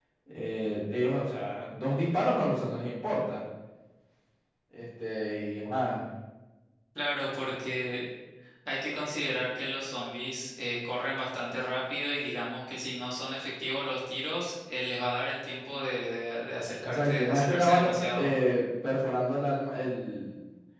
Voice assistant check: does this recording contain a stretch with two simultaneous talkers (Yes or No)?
Yes